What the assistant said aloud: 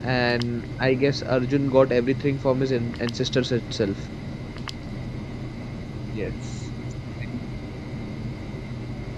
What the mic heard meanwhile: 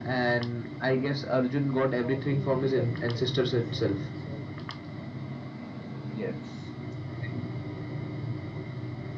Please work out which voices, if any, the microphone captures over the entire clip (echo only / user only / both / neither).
both